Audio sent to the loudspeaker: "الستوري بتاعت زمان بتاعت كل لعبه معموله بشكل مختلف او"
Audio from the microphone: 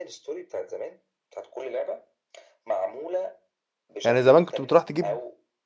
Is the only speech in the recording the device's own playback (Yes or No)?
No